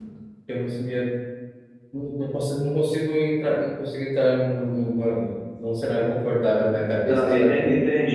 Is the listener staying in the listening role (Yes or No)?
No